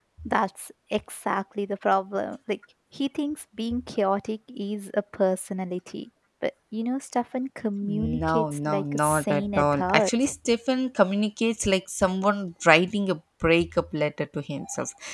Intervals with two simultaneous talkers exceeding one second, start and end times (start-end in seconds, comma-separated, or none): 7.8-10.3